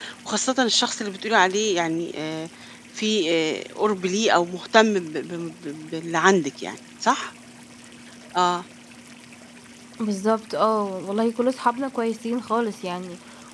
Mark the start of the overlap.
none

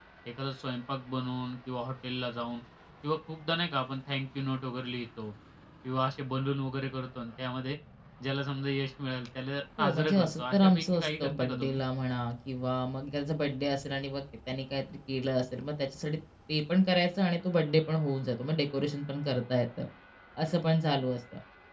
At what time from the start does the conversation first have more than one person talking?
9.8 s

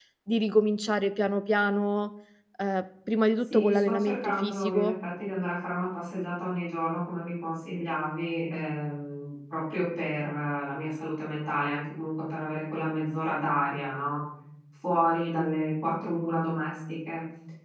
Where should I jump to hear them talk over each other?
3.4 s

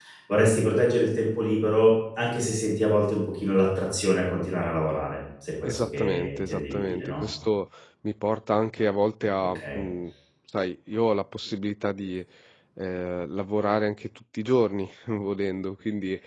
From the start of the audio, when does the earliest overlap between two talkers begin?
5.6 s

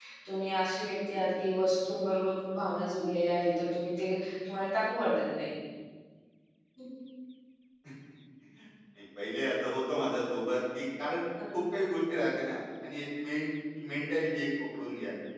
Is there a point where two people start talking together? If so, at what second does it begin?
none

